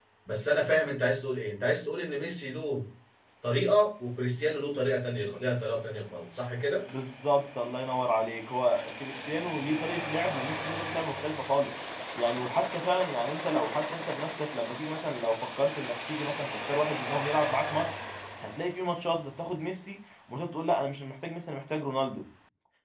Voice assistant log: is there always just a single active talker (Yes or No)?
Yes